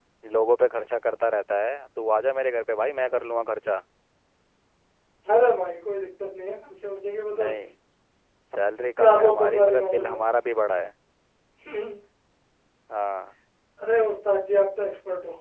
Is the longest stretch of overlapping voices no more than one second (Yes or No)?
No